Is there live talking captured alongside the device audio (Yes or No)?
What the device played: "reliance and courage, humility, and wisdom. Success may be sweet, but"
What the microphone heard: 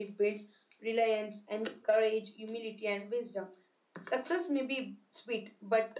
No